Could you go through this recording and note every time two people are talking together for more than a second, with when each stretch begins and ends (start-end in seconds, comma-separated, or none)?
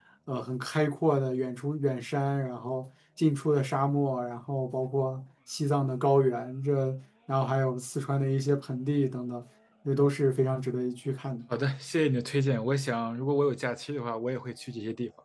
none